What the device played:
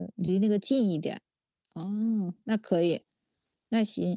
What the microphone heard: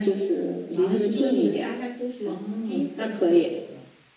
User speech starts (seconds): 0.7 s

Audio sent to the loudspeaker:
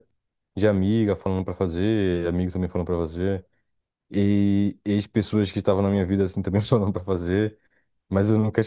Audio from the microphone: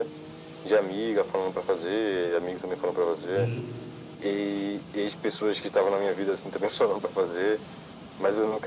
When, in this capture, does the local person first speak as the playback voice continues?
3.3 s

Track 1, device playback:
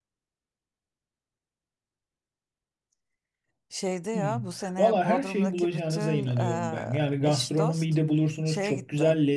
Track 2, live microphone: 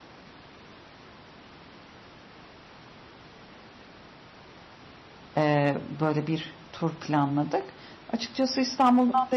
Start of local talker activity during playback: 5.4 s

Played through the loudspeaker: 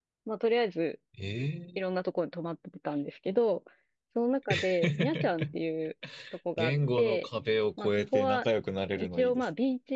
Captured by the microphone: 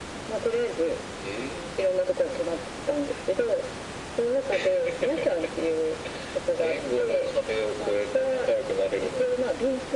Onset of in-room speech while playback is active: none

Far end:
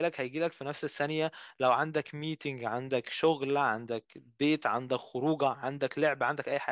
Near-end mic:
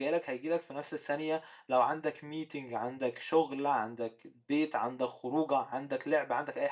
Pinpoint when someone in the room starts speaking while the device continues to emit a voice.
none

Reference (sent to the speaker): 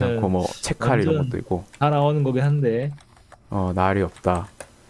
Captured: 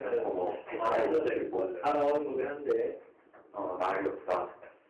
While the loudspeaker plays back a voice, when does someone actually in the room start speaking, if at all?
0.8 s

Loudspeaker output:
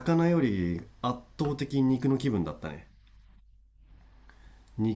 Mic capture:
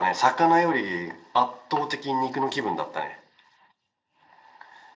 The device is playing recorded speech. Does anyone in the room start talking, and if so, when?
none

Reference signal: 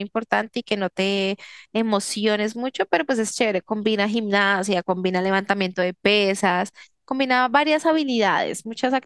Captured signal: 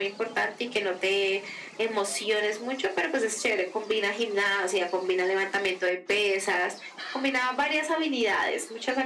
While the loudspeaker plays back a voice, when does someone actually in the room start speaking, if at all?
none

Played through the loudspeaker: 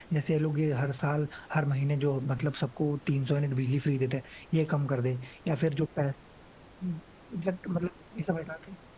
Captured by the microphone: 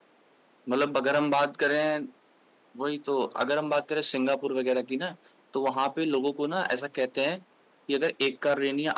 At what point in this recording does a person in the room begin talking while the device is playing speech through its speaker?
0.7 s

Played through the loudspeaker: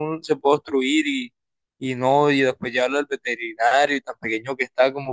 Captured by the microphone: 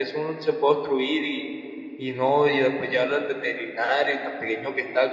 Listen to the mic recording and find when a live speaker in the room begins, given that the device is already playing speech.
none

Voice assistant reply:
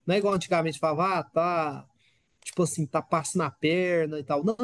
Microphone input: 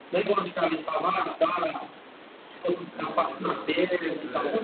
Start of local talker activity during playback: 2.9 s

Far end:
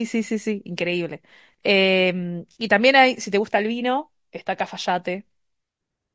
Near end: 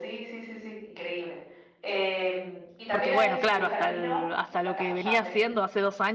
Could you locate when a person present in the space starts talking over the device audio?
2.9 s

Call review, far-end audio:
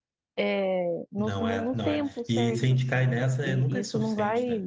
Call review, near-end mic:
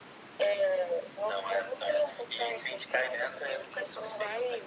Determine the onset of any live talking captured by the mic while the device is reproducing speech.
none

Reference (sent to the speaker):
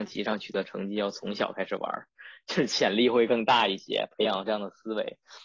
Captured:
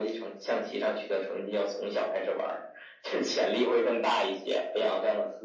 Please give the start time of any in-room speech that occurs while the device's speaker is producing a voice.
none

